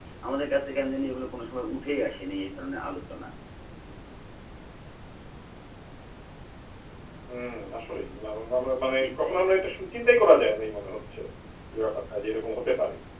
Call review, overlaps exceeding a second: none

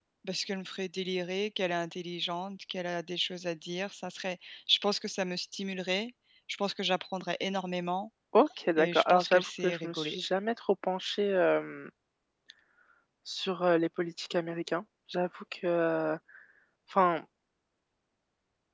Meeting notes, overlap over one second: present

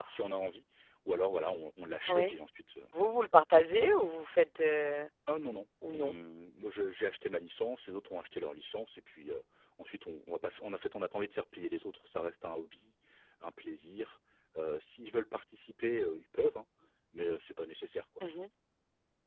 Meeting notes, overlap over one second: none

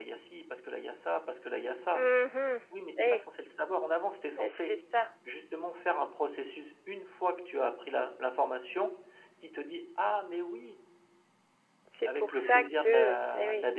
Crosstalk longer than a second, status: present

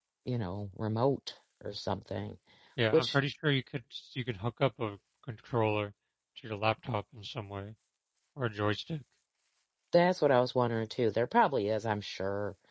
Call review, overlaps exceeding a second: none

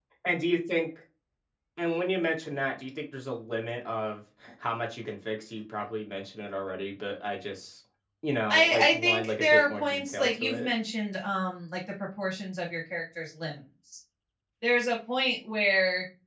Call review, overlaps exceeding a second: present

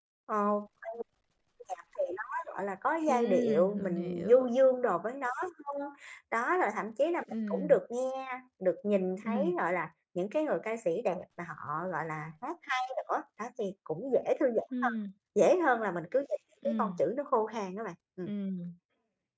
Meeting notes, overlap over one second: present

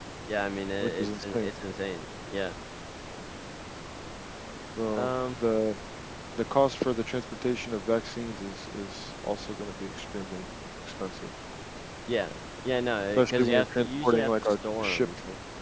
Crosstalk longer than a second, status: present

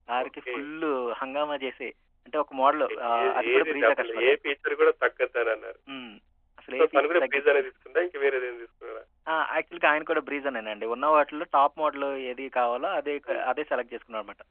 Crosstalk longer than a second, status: present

